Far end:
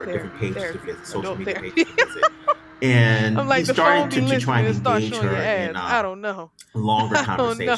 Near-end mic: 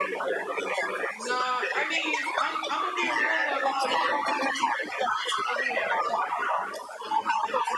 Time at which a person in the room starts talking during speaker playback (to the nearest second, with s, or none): 1 s